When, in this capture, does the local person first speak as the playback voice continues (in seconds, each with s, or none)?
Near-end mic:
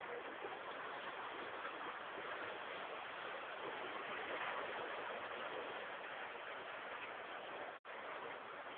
none